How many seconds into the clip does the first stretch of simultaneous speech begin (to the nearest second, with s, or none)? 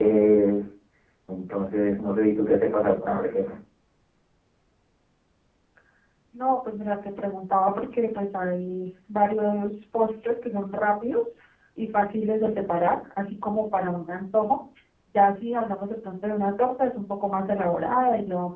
none